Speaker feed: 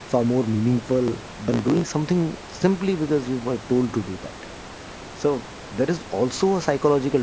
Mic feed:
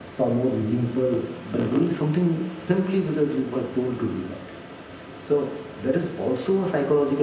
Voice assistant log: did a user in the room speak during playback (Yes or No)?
No